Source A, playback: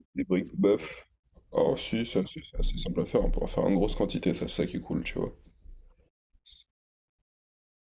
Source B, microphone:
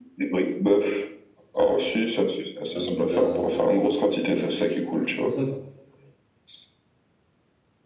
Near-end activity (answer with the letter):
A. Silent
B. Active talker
B